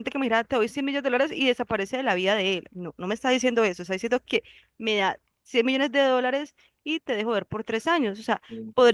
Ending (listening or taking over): listening